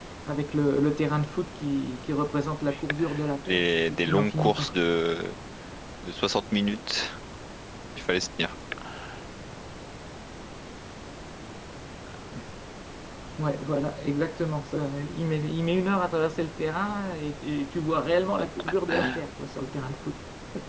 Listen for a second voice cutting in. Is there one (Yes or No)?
Yes